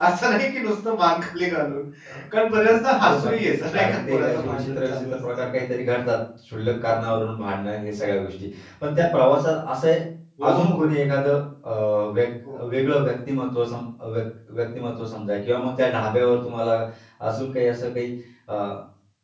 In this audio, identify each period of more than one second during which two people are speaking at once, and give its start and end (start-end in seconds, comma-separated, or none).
3.0-5.4